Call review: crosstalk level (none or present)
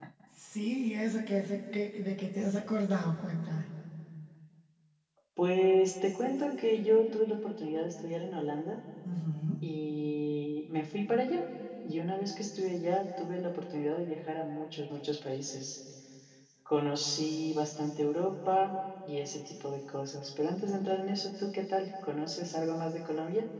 none